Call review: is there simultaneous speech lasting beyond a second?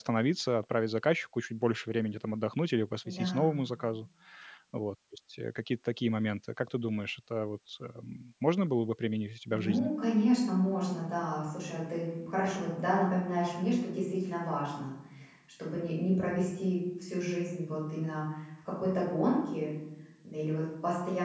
No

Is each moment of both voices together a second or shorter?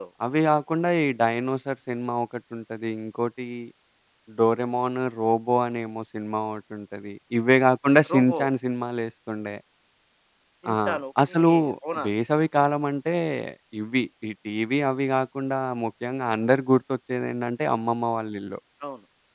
Yes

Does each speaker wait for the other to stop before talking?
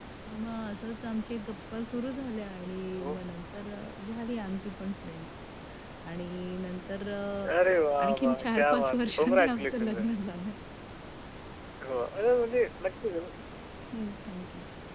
No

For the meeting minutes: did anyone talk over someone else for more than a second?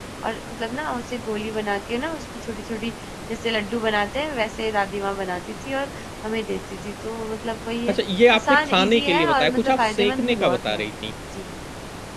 Yes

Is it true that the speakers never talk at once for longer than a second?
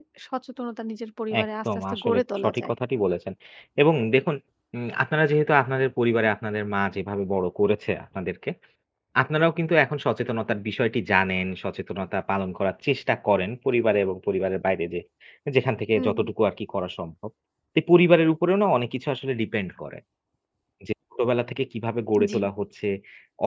No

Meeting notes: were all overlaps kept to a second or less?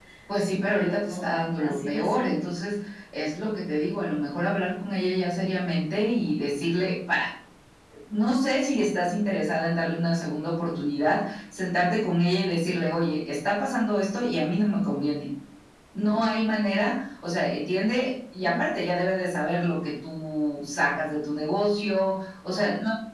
No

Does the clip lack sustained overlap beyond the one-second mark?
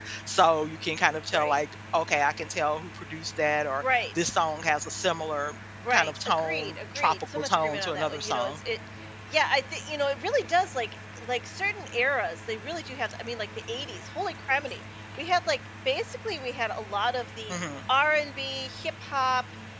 No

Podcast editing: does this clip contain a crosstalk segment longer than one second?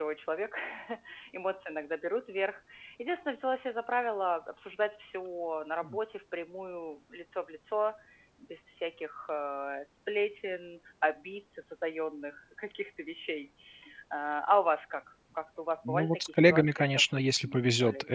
Yes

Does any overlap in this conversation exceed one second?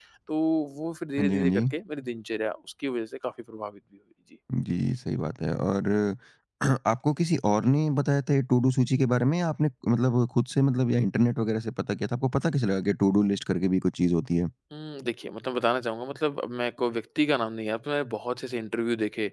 No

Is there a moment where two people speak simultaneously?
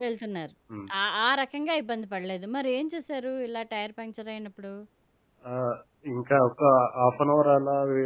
No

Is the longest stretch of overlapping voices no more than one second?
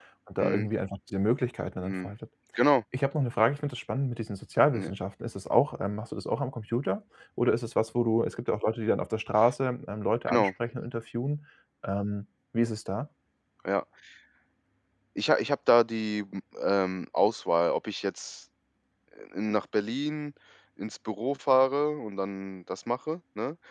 Yes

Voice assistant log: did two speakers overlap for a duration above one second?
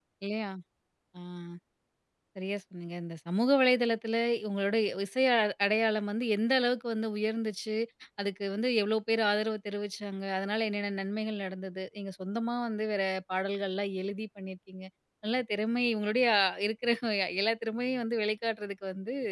No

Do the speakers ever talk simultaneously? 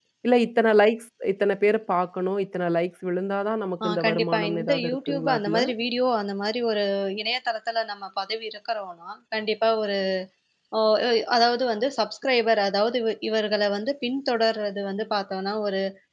Yes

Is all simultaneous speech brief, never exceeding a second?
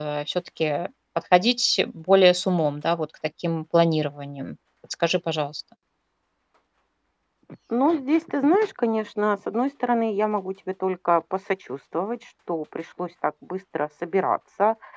Yes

